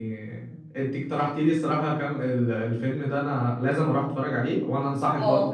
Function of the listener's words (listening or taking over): taking over